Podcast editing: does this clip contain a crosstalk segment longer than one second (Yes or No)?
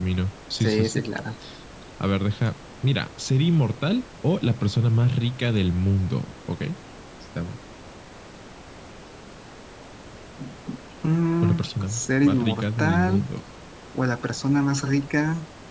Yes